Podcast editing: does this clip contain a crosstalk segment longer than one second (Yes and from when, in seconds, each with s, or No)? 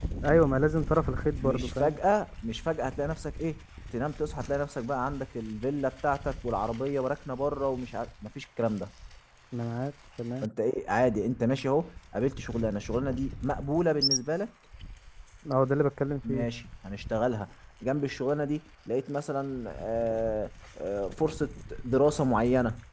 No